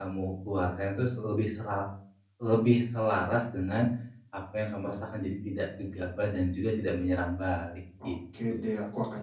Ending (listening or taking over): taking over